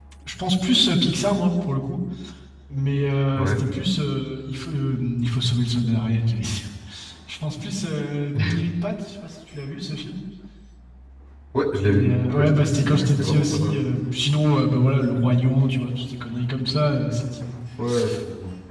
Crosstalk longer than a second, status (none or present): present